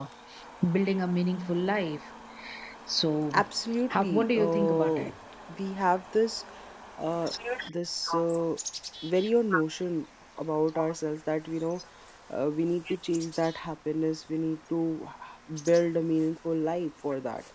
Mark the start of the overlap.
4 s

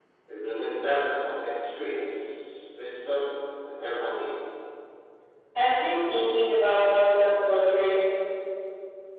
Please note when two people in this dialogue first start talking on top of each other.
none

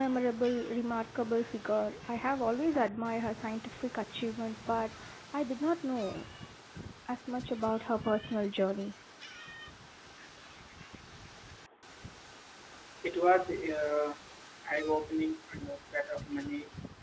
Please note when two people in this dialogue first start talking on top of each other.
none

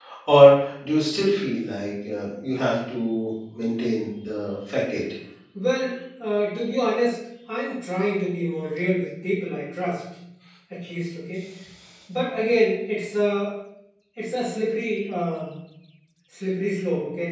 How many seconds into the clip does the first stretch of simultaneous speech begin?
none

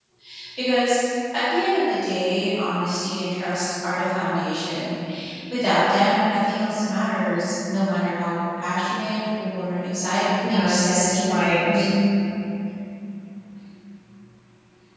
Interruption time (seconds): 10 s

